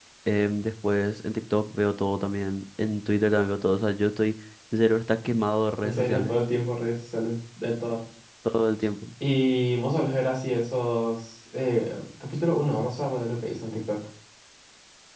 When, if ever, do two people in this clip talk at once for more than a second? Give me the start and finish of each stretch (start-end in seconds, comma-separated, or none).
none